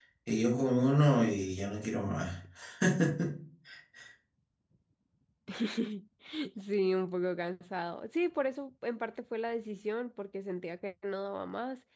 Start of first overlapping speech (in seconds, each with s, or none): none